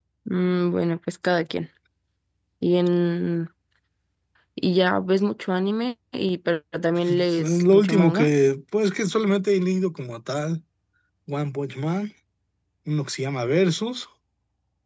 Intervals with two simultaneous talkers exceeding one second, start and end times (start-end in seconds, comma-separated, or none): 7.1-8.3